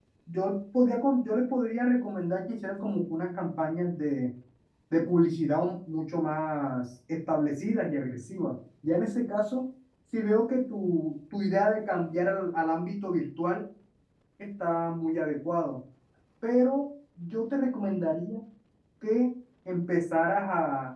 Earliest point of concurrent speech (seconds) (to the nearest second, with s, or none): none